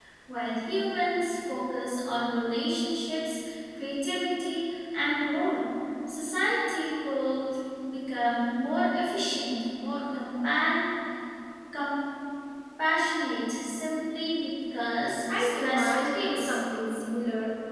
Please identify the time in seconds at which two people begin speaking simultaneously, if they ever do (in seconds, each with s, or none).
15.3 s